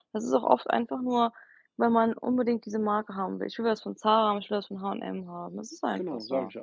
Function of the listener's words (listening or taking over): taking over